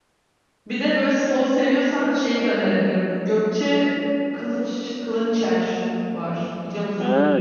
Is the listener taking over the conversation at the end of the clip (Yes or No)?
Yes